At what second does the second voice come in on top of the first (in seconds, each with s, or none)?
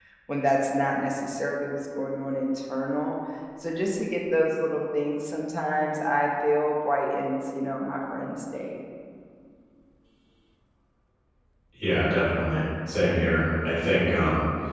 none